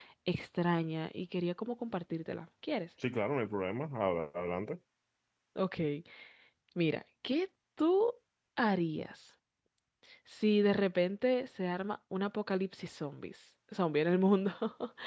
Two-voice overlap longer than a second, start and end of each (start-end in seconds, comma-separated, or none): none